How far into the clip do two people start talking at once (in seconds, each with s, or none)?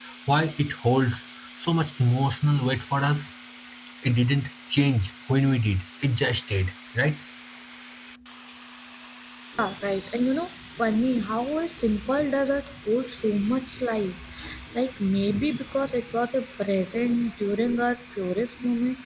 none